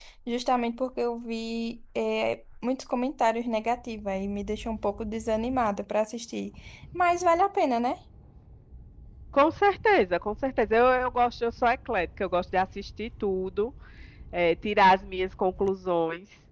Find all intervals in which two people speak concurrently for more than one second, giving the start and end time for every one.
none

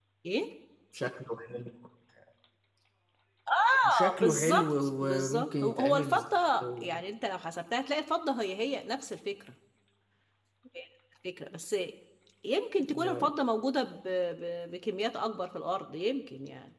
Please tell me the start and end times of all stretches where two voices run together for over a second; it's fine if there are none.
3.8-6.2

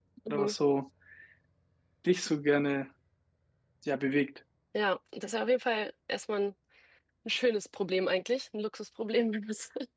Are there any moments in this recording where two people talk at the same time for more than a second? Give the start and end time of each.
none

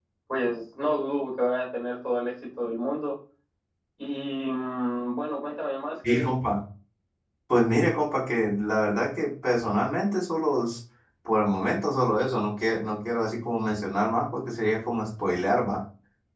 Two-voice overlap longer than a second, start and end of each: none

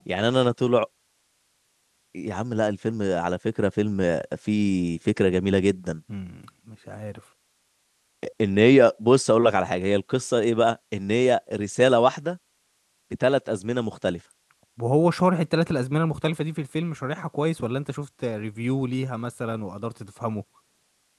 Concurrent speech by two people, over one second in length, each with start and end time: none

